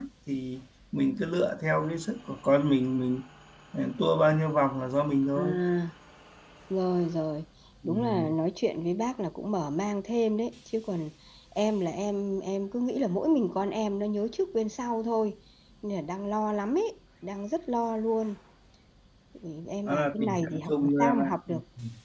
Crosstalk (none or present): present